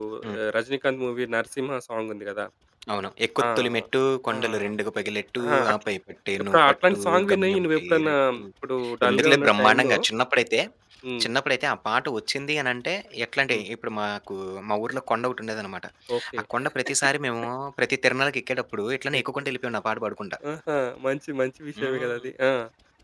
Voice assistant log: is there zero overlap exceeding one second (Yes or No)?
No